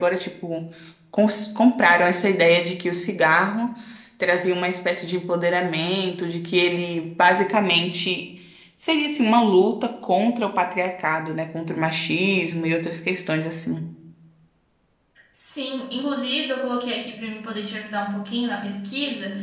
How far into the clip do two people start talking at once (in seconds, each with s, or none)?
none